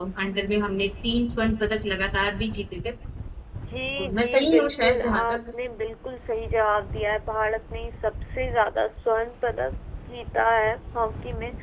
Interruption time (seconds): 4.2 s

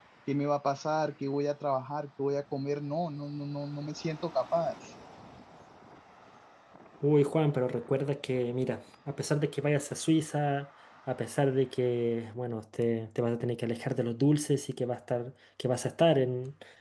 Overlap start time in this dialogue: none

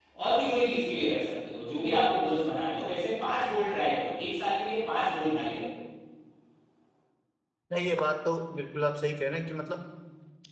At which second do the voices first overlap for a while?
none

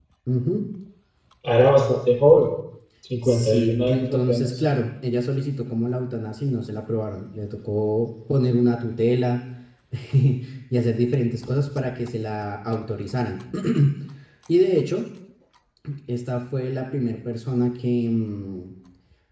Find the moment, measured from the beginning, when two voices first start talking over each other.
3.2 s

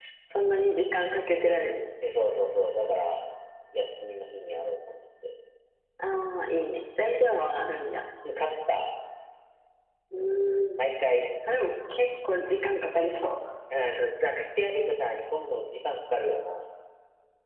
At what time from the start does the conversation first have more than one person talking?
none

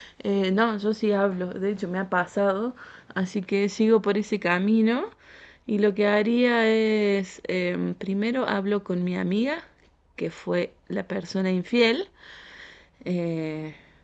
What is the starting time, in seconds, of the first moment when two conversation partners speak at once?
none

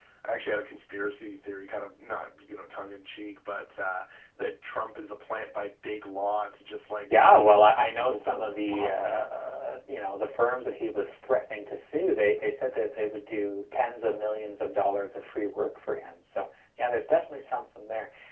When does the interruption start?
7.0 s

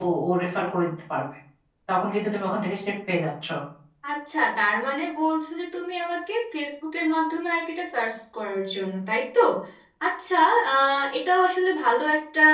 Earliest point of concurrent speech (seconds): none

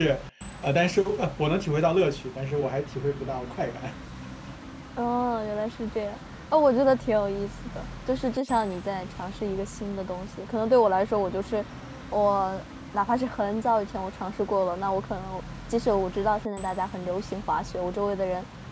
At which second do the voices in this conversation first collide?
none

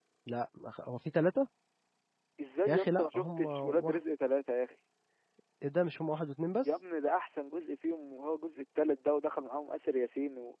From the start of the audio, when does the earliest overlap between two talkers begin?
2.7 s

